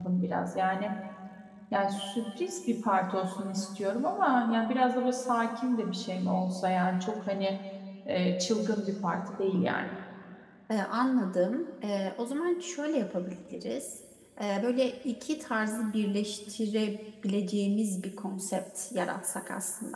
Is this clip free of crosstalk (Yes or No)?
Yes